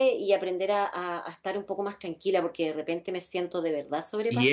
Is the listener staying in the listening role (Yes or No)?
No